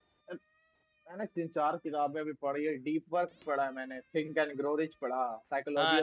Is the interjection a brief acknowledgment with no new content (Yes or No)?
No